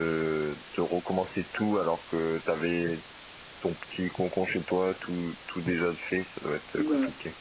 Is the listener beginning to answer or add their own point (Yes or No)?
Yes